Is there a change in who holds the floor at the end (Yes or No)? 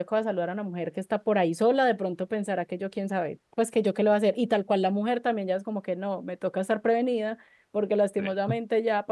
No